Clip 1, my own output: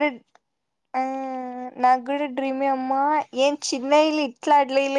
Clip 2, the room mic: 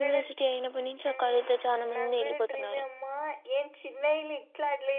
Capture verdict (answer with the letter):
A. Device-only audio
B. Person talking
B